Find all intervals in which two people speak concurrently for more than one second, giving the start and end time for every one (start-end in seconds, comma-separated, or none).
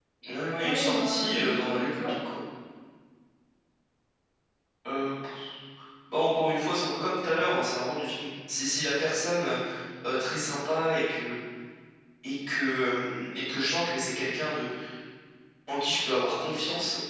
0.6-2.1